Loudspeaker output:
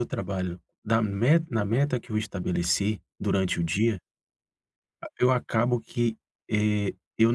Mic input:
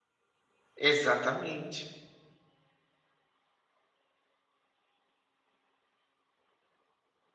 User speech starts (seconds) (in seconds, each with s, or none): 0.8 s